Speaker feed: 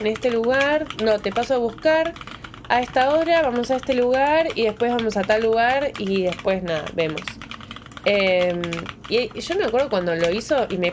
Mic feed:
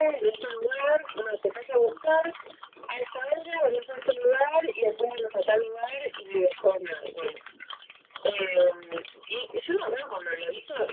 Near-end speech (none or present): none